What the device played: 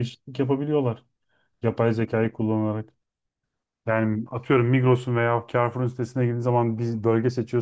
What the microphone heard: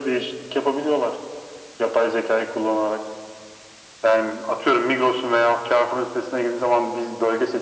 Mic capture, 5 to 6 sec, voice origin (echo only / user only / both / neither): echo only